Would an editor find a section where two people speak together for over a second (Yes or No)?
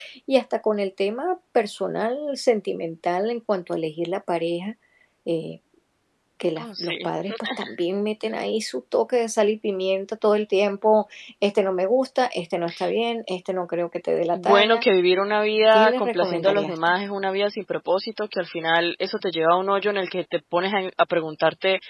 Yes